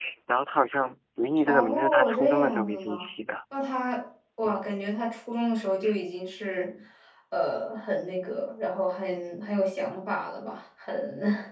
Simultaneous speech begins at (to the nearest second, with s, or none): 1 s